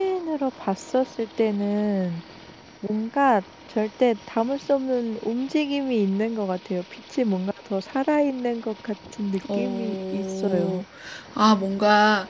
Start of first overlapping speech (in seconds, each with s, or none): 9.4 s